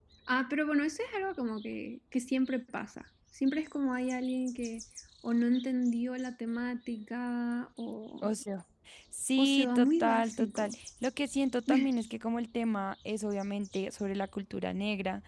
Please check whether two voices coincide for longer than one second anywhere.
Yes, from 9.4 s

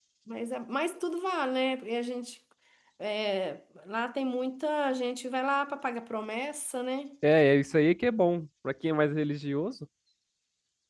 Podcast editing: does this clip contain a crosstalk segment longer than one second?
No

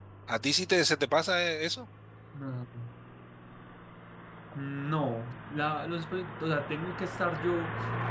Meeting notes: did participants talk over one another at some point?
No

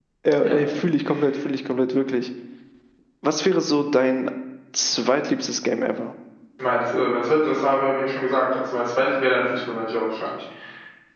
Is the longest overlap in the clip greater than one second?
No

